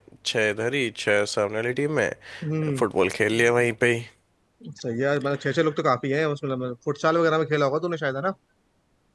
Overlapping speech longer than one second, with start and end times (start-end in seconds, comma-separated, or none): none